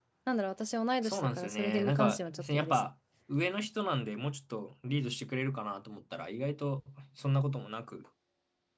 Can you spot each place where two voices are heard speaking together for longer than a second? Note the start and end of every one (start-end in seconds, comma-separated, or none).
1.0-2.9